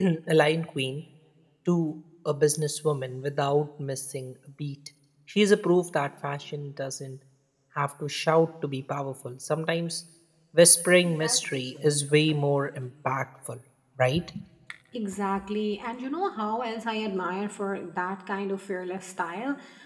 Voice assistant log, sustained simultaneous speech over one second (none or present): none